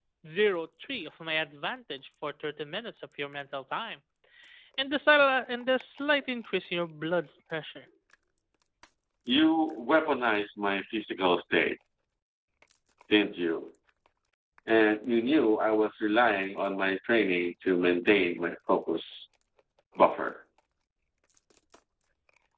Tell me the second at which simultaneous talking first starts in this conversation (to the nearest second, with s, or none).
none